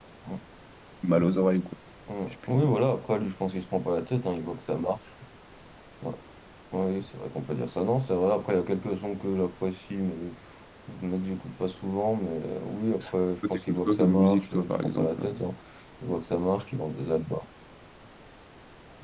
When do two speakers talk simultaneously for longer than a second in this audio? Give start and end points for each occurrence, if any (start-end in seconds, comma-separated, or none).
13.5-15.2